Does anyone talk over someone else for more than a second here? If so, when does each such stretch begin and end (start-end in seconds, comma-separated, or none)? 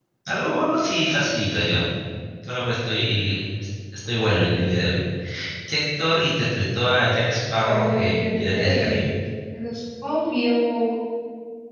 7.6-9.1